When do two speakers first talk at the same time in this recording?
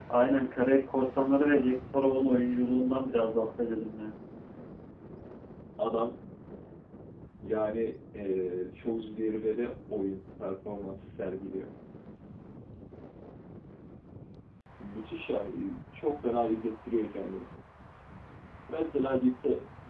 none

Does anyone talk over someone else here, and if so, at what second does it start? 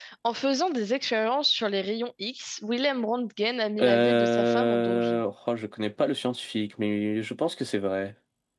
3.8 s

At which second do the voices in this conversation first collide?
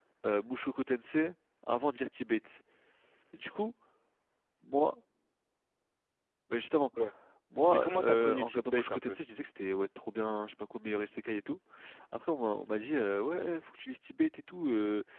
7.7 s

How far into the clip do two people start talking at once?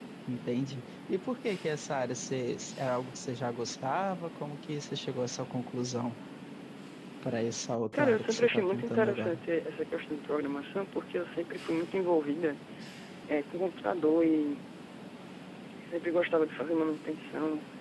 7.9 s

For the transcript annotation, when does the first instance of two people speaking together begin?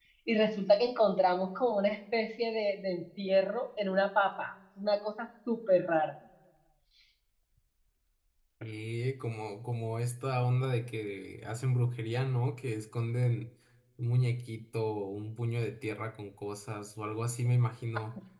none

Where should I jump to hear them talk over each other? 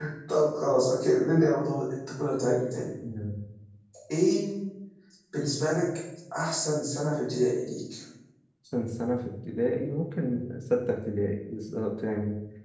none

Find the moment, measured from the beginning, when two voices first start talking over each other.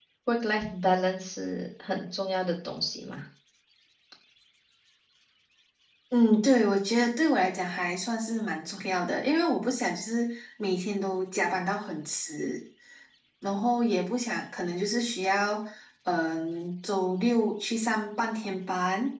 none

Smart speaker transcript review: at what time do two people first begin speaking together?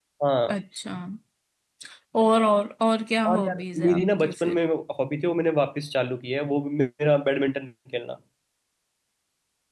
3.2 s

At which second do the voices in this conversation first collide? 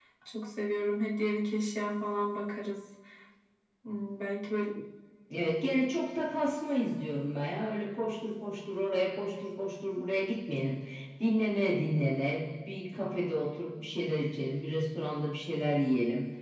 none

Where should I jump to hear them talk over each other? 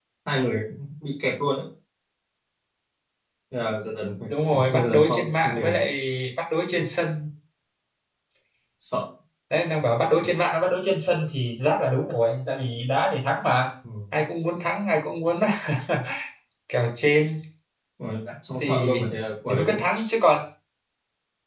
4.2 s

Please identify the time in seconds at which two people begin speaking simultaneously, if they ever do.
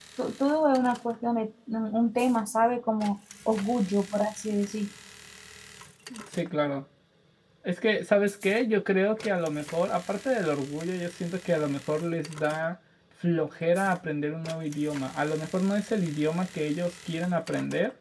none

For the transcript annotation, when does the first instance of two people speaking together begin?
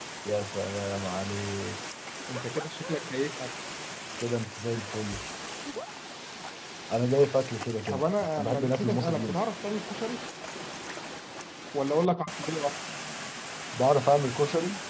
7.9 s

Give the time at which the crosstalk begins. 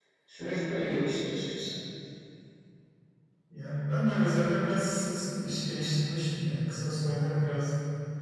none

